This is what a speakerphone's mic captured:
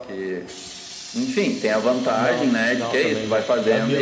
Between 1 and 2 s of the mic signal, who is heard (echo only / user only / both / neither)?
echo only